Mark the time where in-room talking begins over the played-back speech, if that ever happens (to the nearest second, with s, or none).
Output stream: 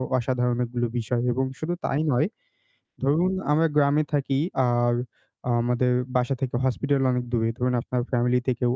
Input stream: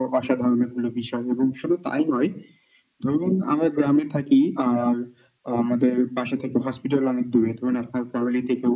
none